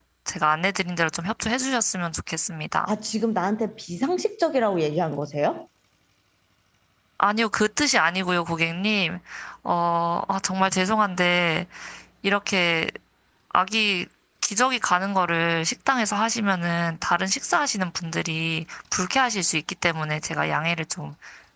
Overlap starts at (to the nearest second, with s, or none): none